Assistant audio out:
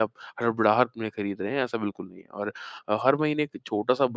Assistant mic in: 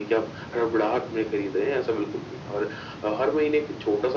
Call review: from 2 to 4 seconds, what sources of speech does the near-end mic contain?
echo only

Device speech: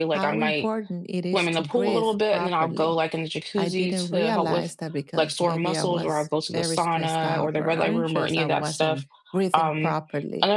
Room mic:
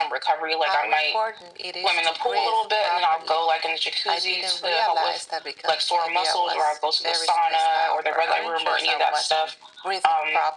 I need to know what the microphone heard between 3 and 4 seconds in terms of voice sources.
echo only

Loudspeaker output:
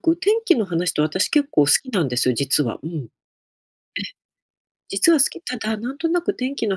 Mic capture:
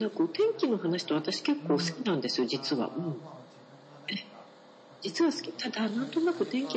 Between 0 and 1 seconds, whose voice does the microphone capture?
both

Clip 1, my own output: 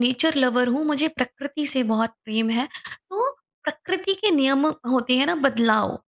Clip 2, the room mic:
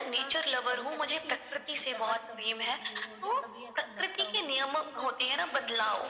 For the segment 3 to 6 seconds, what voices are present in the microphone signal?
both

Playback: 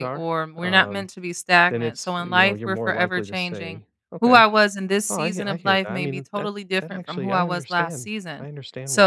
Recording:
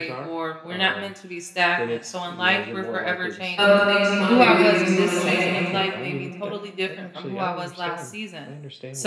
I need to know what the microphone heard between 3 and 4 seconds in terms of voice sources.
both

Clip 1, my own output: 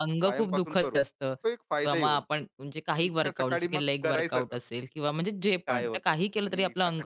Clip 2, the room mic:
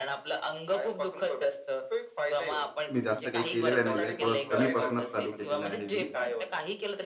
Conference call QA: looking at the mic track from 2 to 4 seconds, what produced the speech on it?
both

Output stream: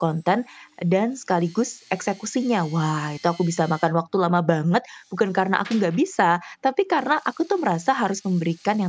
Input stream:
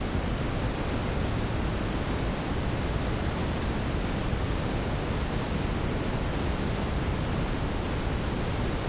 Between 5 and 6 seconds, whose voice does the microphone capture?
neither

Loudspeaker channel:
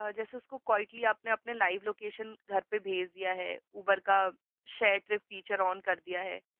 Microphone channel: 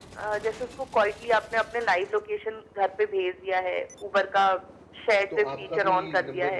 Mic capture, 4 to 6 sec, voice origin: both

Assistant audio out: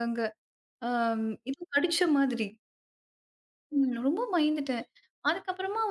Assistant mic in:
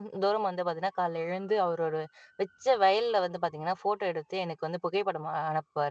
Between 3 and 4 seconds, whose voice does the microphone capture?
user only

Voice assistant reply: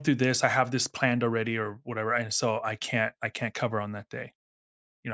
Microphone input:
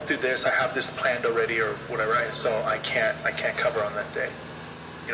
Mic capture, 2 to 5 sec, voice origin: echo only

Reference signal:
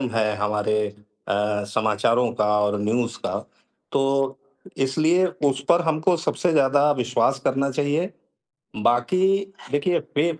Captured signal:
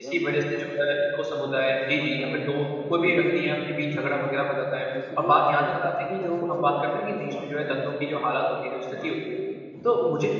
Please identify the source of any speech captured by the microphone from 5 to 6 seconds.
both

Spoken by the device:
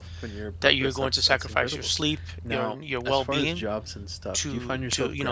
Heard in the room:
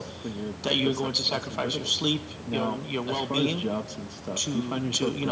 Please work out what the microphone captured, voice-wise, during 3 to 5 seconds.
echo only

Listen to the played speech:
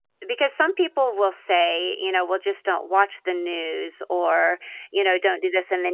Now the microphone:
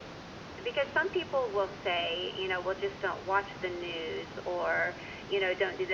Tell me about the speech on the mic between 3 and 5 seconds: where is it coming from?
echo only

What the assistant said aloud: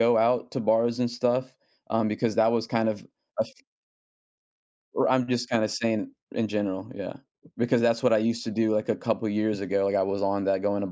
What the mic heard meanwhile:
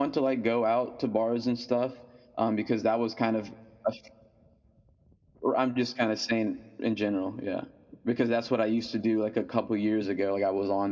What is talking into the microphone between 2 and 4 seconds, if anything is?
echo only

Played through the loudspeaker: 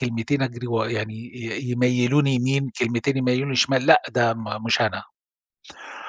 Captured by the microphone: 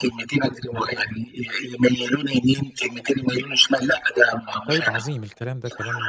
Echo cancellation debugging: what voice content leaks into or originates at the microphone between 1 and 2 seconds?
echo only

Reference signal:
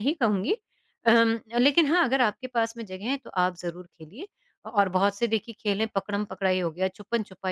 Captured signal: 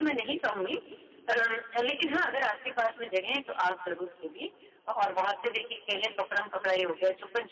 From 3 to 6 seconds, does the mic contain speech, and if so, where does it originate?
echo only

